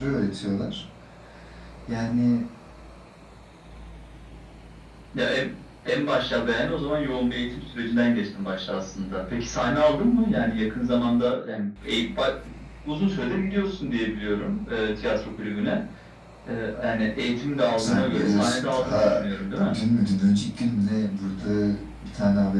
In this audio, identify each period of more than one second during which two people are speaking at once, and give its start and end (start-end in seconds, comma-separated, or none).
17.8-19.2